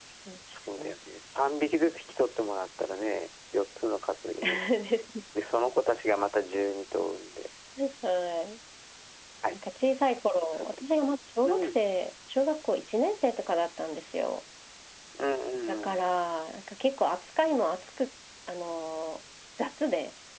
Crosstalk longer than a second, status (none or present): none